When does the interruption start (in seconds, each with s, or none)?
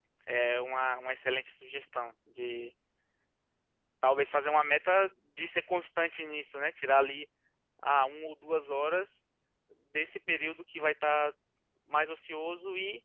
none